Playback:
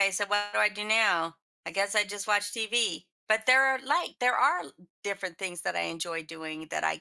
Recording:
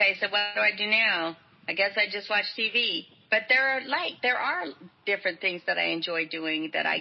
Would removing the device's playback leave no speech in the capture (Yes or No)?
Yes